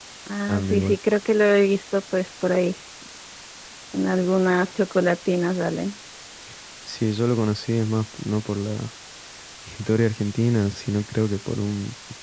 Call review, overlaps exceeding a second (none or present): none